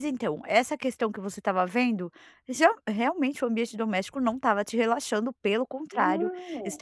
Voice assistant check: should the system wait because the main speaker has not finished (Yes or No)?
Yes